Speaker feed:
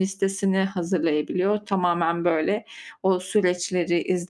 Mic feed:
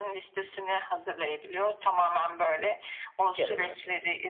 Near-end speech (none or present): present